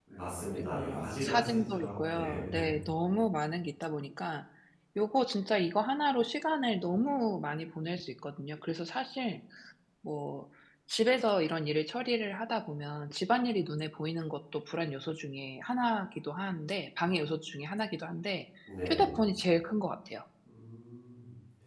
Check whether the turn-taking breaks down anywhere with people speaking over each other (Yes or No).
Yes